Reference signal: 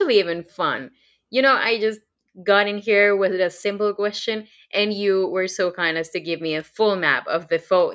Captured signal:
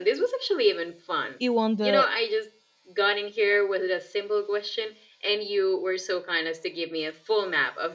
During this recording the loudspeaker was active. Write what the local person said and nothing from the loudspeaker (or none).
you want the